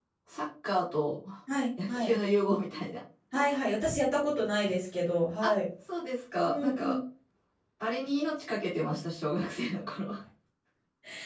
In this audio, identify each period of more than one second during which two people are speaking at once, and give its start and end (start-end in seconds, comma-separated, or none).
none